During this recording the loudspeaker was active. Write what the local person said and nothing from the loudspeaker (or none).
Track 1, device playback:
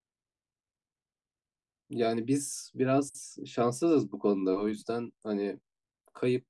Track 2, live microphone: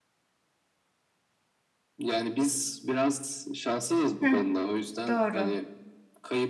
Hı, doğru.